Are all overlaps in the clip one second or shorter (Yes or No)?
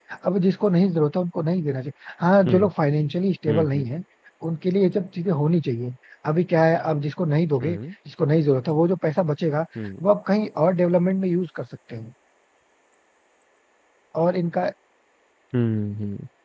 Yes